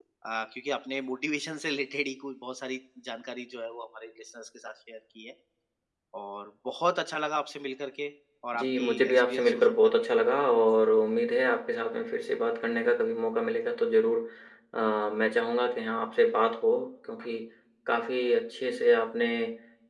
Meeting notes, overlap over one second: present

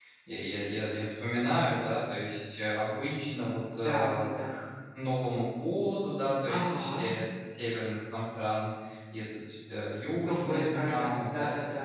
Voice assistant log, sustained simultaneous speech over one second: present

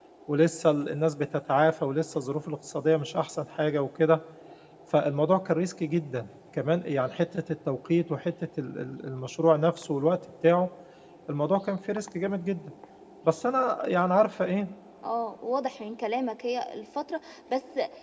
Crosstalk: none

